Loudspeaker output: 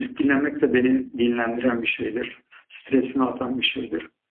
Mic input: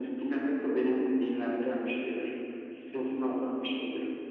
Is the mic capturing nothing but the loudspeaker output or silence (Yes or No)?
Yes